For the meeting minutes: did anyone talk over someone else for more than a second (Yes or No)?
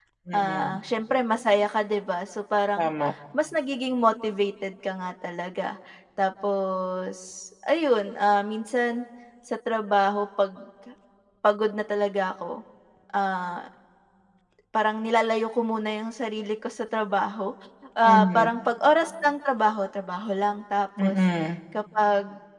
No